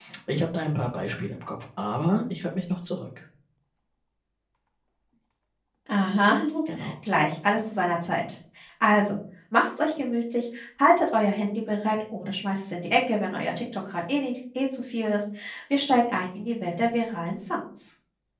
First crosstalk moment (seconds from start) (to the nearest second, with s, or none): none